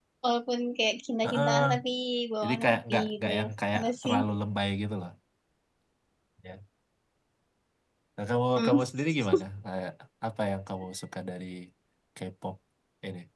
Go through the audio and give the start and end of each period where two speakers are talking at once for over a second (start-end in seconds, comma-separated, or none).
2.4-4.2